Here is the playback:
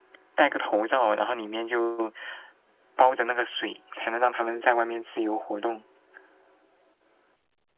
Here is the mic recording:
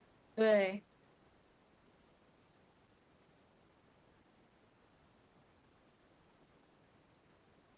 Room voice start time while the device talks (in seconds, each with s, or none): 0.4 s